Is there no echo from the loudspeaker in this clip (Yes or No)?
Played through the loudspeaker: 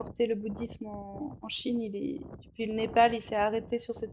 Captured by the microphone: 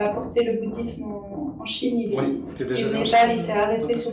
No